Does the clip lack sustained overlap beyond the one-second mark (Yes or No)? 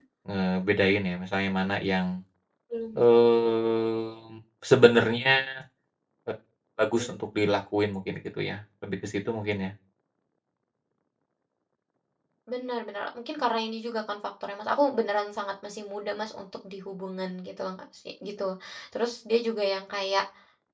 Yes